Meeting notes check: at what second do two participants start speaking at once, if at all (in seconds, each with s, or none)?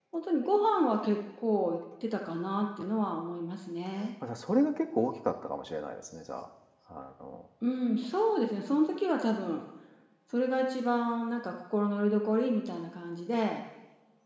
none